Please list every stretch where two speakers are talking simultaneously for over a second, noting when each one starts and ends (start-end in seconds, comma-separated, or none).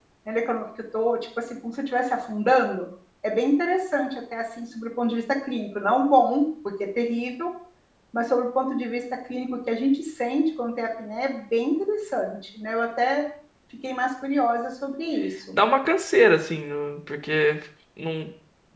none